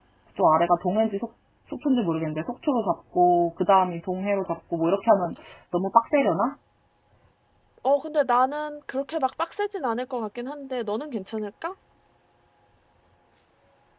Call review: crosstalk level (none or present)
none